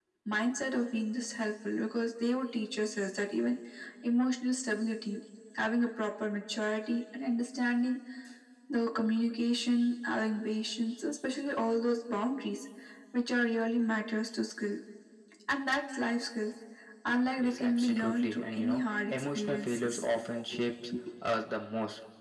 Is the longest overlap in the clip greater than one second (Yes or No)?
Yes